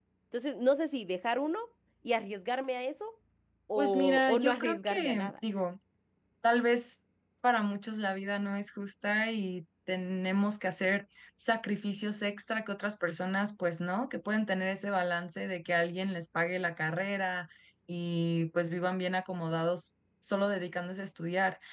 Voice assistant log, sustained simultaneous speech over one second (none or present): present